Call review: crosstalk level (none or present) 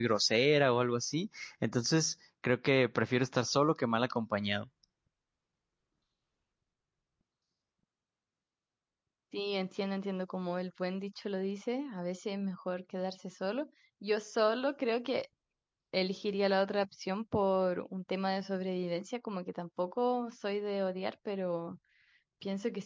none